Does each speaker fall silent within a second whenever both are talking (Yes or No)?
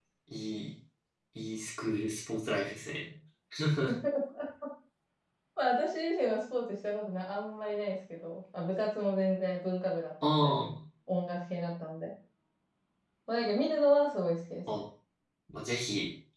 Yes